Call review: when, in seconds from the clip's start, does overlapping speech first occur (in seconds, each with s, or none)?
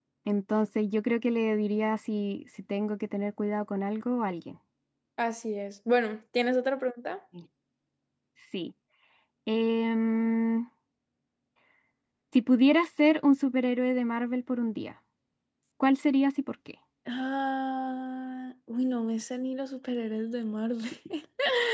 none